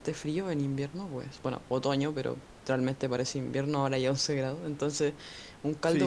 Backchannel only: No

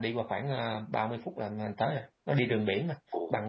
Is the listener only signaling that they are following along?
No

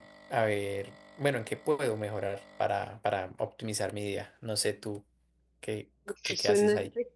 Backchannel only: No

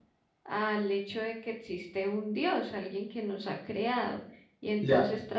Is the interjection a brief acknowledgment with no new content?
Yes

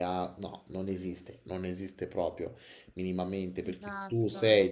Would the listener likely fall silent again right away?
Yes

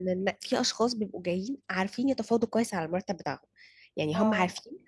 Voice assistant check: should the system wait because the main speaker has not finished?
Yes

